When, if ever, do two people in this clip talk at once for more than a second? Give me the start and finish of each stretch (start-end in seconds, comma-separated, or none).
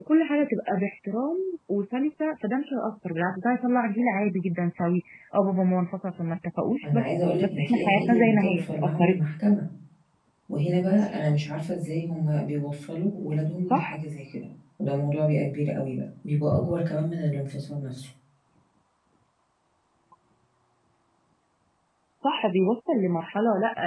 6.8-9.4